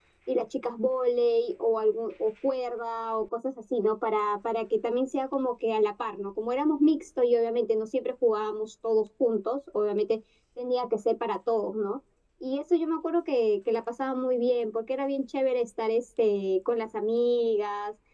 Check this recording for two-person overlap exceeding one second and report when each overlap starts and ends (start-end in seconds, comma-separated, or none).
none